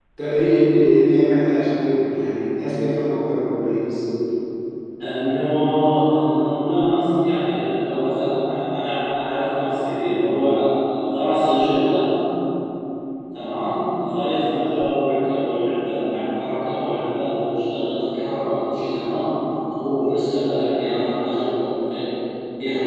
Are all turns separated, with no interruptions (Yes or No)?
Yes